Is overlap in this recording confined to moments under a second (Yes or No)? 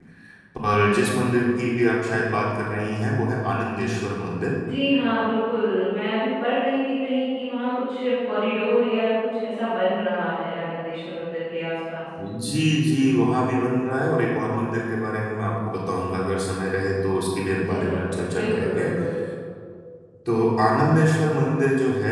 No